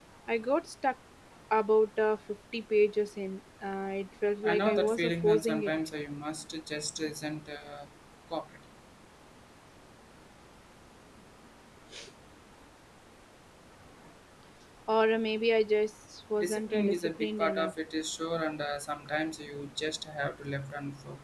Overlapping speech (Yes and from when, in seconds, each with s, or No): Yes, from 4.4 s